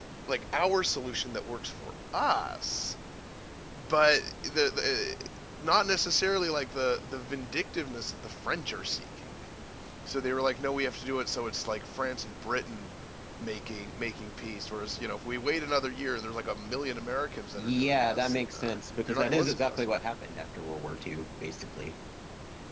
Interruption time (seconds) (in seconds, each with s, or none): 17.6 s